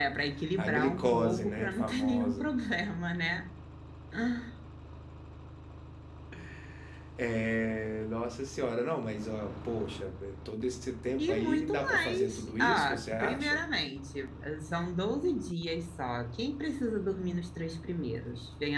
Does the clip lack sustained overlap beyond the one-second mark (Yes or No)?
No